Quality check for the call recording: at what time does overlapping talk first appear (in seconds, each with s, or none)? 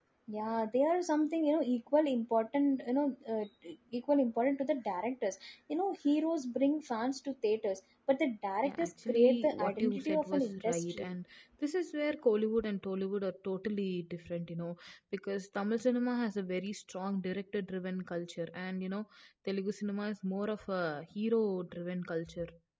8.6 s